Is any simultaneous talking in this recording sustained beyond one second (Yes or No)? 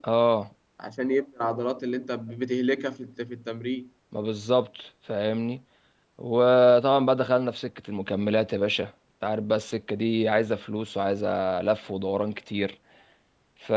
No